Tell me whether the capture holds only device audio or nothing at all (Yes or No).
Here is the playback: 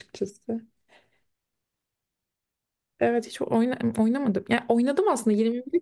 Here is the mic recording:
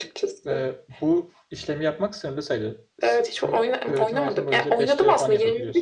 No